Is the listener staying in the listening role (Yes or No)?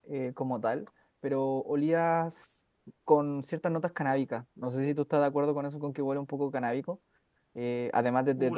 No